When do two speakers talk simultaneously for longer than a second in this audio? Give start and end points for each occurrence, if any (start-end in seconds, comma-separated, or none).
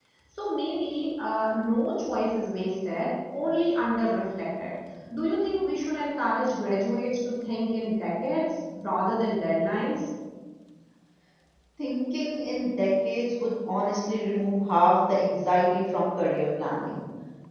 none